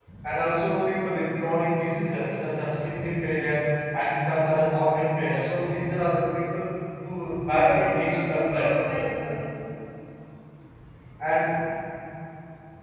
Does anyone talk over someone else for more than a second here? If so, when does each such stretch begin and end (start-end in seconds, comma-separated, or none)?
7.4-8.7